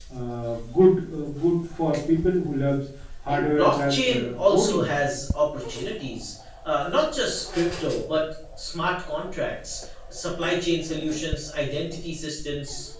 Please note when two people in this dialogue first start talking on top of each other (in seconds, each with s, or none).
3.3 s